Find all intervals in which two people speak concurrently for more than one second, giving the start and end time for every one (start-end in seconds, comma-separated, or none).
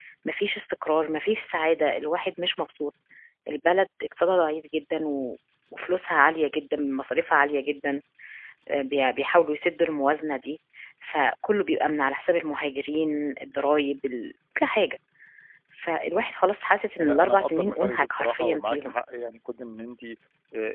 17.0-18.9